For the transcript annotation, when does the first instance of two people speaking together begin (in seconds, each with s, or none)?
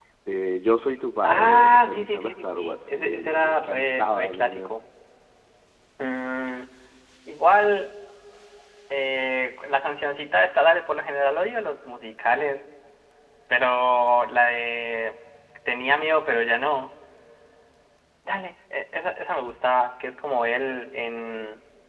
1.2 s